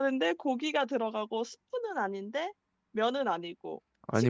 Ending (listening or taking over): listening